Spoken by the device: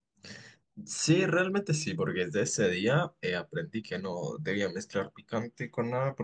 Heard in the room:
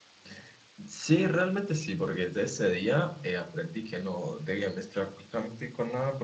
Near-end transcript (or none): none